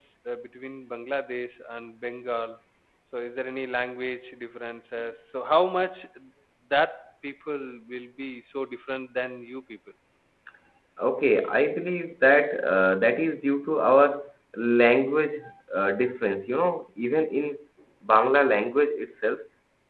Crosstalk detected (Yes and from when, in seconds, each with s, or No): No